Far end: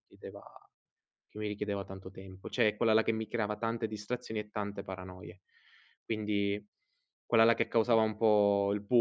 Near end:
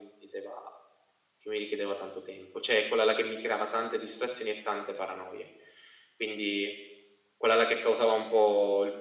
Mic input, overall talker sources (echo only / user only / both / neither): echo only